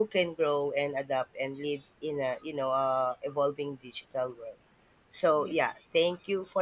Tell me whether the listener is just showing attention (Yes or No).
Yes